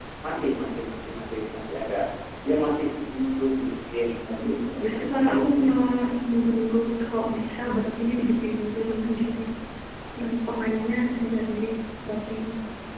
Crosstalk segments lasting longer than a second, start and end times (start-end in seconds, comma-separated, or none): 4.2-5.7